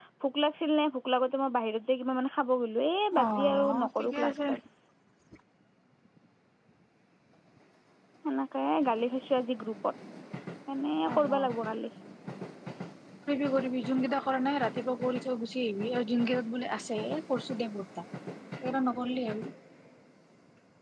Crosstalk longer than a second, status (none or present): present